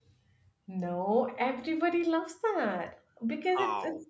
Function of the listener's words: listening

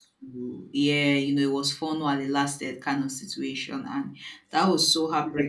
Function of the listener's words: listening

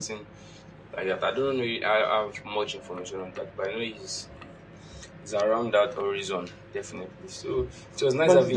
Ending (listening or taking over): taking over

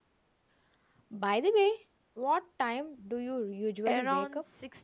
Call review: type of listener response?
taking over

